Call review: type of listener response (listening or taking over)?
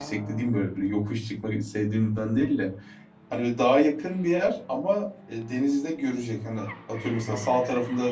listening